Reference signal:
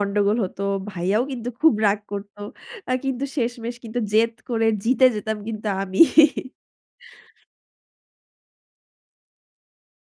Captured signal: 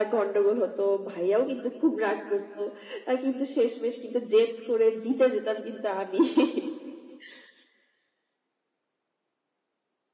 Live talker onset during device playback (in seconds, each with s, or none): none